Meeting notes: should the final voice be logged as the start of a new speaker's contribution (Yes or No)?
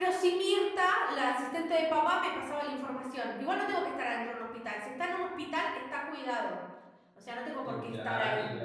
Yes